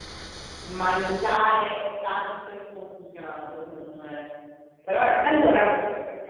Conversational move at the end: listening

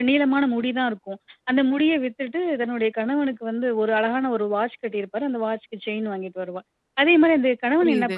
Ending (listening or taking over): listening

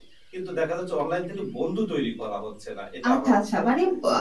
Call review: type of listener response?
taking over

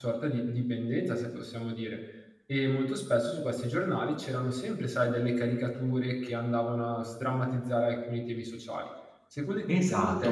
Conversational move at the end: taking over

